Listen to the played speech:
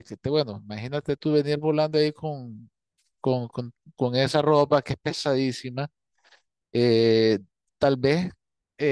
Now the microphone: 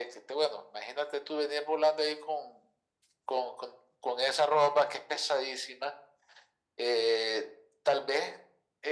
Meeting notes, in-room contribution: none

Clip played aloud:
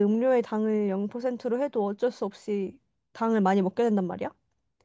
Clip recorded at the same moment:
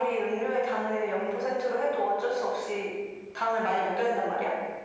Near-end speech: none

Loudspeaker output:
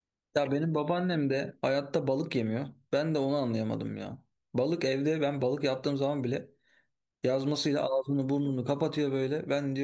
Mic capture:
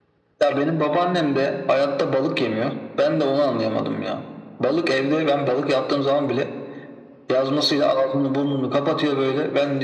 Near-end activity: none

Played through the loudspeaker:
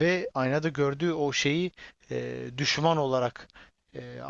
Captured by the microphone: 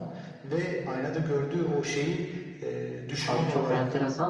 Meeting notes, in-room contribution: present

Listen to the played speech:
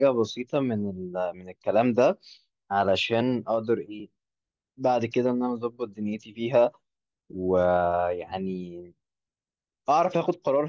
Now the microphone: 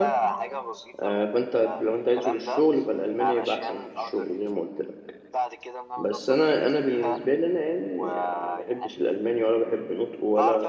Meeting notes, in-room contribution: present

